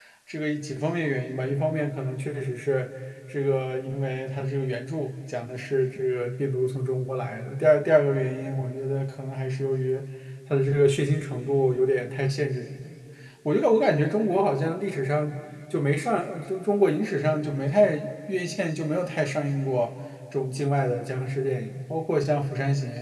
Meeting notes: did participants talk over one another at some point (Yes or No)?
No